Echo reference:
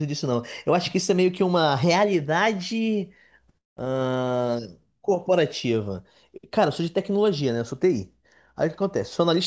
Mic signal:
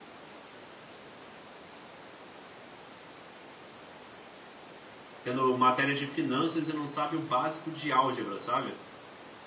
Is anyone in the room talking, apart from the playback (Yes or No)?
Yes